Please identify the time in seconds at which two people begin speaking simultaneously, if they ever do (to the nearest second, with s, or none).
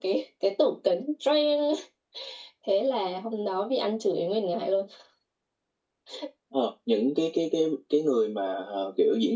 none